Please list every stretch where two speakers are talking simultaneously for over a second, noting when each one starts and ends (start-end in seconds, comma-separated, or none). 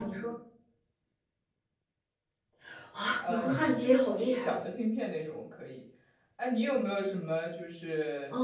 3.3-4.5